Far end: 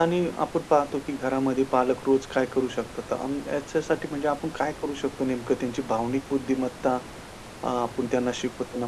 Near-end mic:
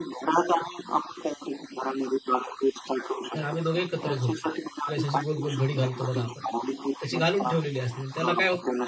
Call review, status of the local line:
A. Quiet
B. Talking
B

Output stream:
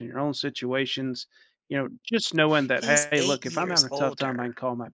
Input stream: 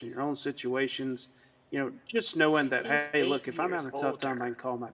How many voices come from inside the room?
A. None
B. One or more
A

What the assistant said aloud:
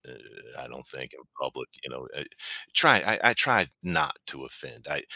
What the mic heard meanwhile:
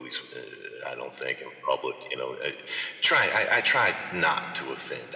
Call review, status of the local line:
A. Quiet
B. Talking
A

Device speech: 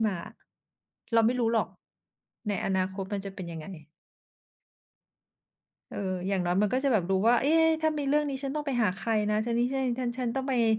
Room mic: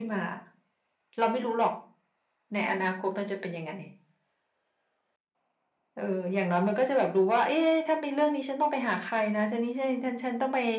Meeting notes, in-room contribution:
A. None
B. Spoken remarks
A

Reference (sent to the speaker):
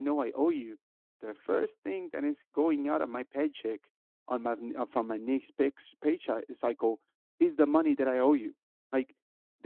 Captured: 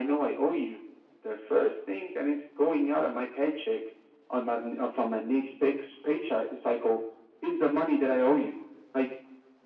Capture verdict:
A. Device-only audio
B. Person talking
A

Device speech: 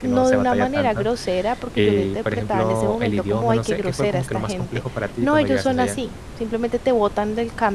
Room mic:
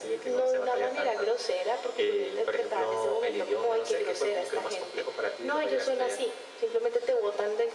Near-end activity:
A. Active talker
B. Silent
B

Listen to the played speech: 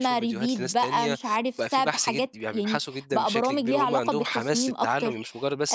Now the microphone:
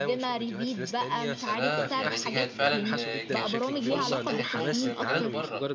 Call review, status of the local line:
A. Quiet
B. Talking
B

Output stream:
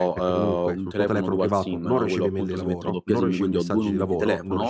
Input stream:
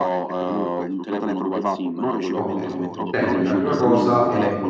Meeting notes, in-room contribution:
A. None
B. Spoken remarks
B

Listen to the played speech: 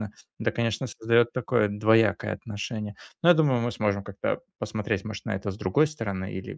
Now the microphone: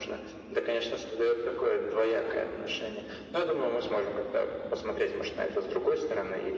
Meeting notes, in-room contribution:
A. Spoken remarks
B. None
B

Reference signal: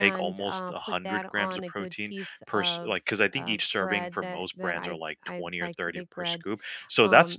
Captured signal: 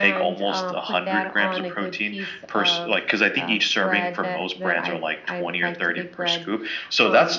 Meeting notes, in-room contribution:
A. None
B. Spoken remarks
A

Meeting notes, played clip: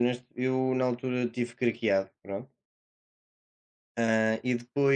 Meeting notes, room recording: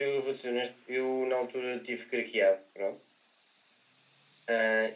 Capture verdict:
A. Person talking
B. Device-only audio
B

